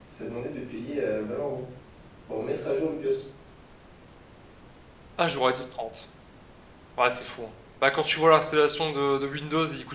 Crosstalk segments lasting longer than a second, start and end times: none

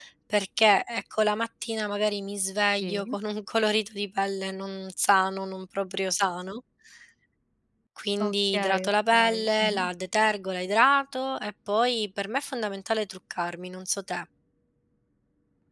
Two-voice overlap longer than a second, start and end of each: 8.2-9.9

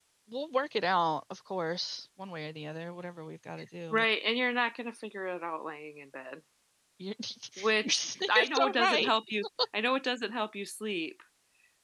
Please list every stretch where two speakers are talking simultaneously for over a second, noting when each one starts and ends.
7.8-9.1

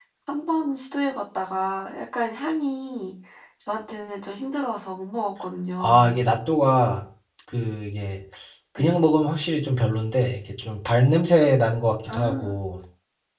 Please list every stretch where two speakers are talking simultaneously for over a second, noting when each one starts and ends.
none

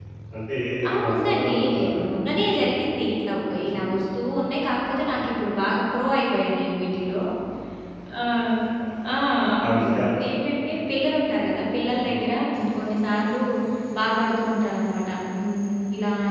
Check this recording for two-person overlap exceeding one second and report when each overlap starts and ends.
0.9-2.1

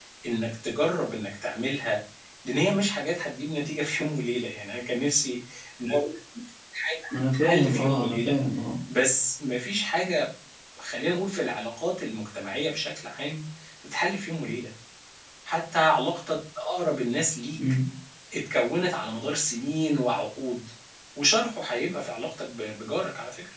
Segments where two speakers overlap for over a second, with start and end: 7.1-8.3

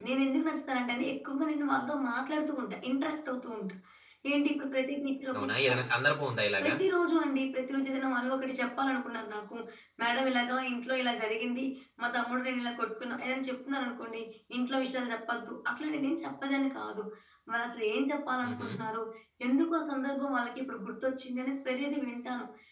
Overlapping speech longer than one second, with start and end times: none

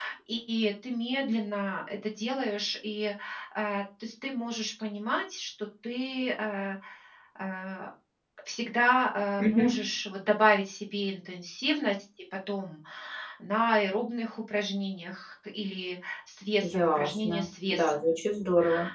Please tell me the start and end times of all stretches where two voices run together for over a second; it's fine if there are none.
16.6-18.2

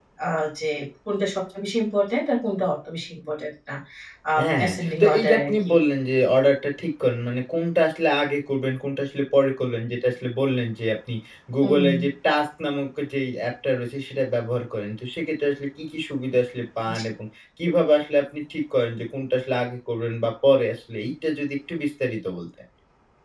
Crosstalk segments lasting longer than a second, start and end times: 4.4-5.7

